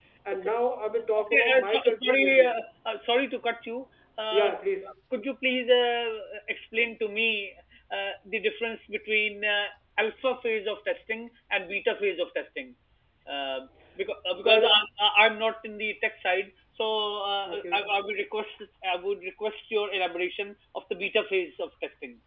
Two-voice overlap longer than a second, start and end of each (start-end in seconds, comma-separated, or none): 1.2-2.6